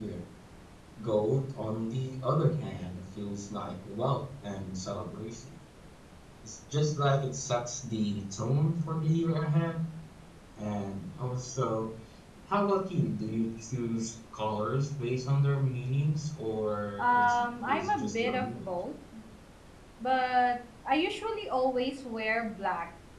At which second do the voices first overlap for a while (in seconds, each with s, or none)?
17.0 s